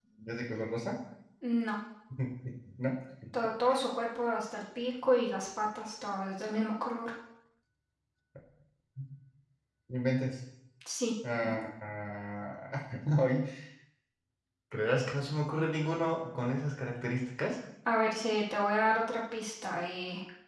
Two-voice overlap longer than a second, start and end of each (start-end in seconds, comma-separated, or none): none